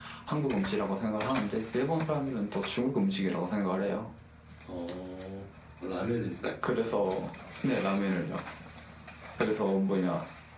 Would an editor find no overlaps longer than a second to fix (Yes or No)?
Yes